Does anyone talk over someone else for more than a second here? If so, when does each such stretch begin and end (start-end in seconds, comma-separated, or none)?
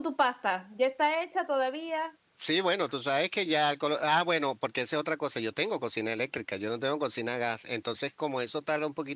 none